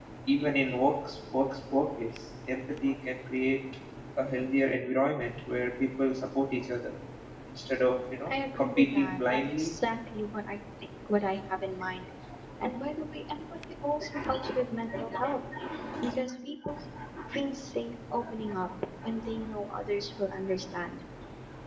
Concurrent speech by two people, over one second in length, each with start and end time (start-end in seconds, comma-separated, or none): 8.3-9.8